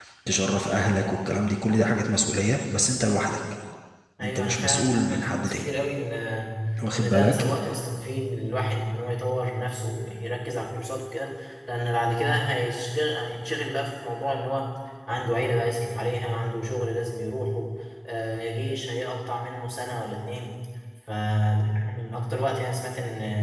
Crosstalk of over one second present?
Yes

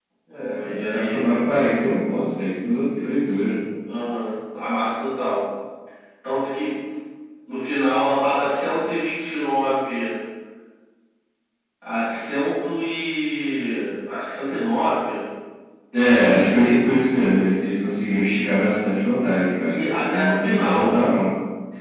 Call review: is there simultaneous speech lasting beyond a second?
Yes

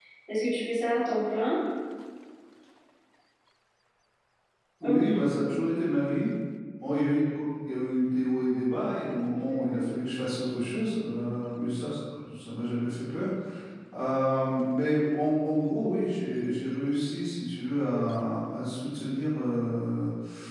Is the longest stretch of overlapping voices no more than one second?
Yes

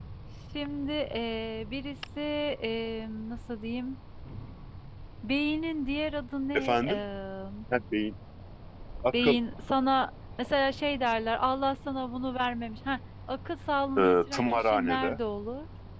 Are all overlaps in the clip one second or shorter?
No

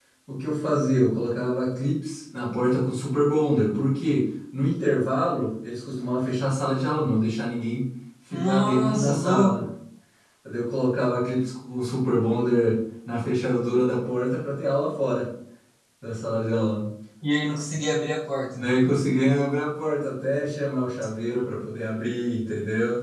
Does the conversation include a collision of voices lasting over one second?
Yes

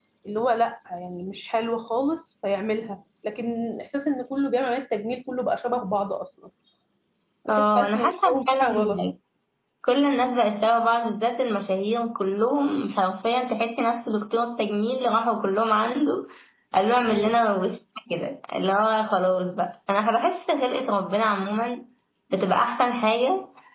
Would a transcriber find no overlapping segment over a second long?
No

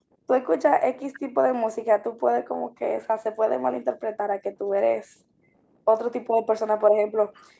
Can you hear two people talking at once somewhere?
No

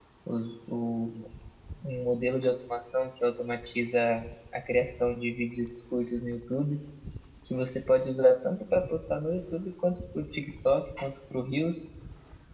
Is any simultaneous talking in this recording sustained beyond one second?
No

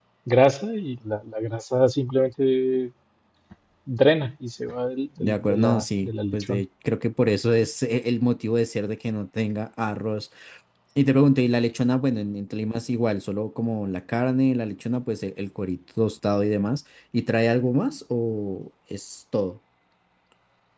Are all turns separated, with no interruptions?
No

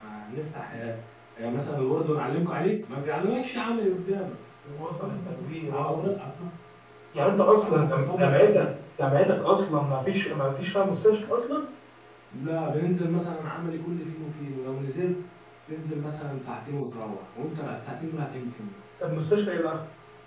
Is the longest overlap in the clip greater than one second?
Yes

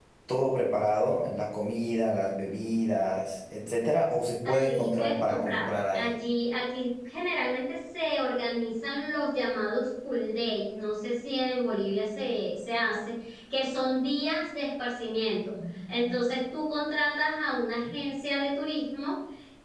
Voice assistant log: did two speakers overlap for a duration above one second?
Yes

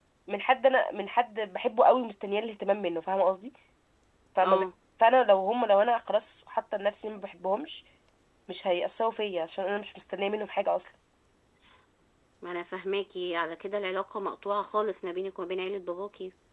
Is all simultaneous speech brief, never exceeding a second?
Yes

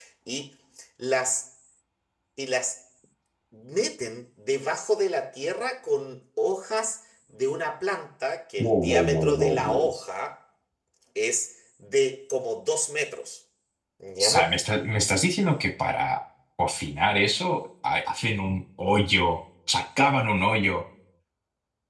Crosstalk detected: Yes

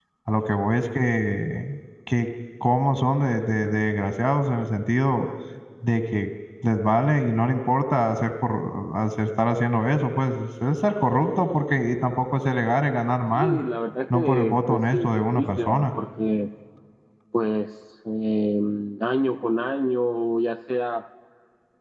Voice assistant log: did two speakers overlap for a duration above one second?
Yes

